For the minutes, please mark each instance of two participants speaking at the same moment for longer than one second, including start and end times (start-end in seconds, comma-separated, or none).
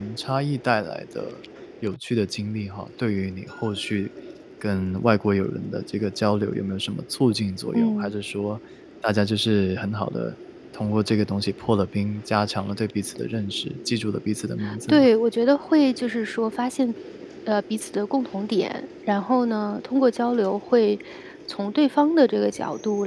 none